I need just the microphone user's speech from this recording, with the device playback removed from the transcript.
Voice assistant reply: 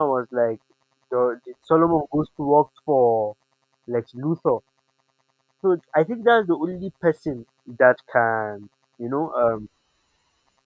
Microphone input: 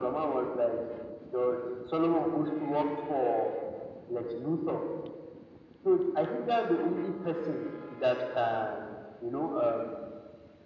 none

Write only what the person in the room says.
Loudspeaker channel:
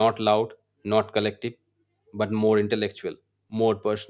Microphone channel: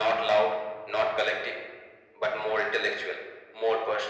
none

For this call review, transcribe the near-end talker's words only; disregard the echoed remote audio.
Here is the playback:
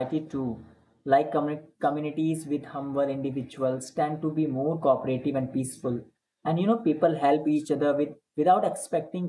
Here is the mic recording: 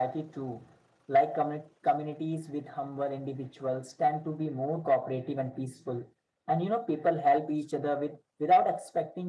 none

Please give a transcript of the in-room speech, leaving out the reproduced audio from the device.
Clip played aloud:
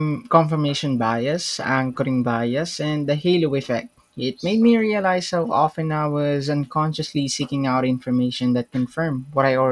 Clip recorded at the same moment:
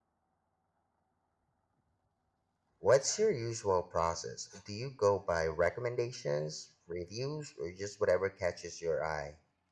What's your usual process? Do you go by recommendations, reviews, or just whatever catches your eye?

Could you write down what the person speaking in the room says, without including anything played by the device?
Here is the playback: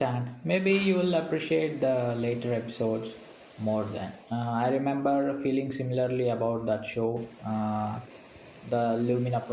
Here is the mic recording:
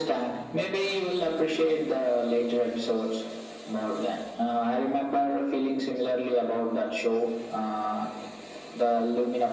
none

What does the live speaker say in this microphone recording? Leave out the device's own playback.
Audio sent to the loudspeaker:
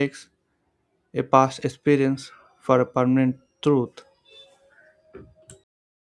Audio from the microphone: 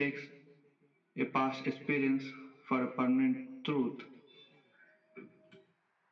none

